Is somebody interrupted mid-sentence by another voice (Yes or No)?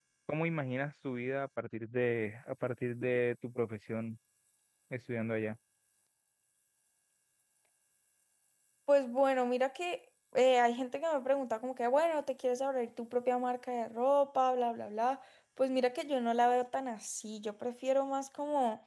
No